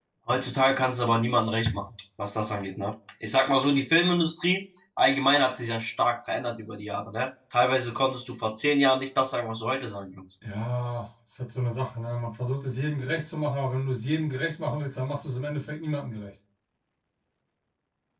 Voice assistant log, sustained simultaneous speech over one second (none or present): none